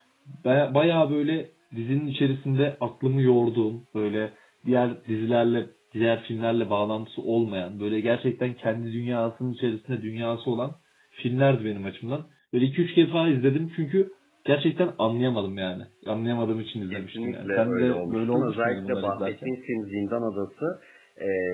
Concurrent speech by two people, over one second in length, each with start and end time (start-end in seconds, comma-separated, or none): 16.9-19.5